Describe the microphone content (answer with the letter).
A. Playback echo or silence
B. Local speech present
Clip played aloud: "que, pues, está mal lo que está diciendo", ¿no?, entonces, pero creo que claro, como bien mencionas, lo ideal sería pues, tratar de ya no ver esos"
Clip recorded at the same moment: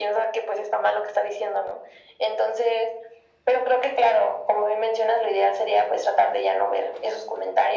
A